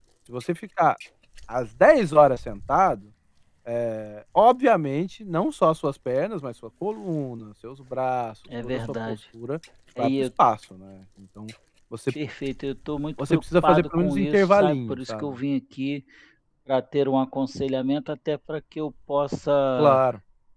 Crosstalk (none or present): present